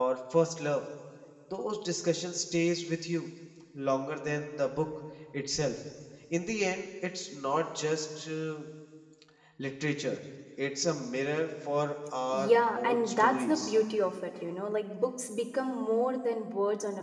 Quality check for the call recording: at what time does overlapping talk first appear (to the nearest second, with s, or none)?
12 s